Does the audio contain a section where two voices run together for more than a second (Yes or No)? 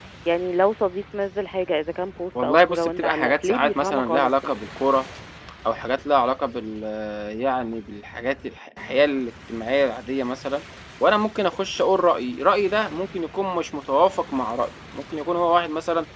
Yes